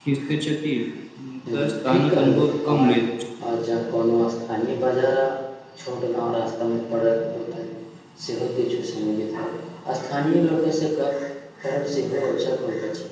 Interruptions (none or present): present